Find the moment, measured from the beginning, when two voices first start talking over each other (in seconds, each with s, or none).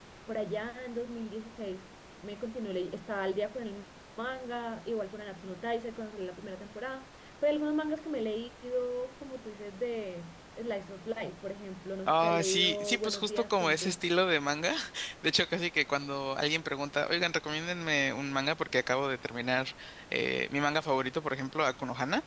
12.1 s